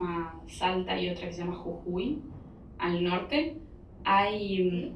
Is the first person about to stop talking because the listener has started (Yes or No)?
No